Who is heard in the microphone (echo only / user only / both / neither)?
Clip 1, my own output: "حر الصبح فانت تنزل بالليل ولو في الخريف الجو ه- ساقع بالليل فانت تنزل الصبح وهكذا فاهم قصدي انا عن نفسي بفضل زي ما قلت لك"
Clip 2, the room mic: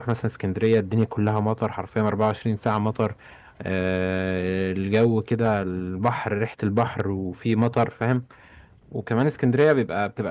user only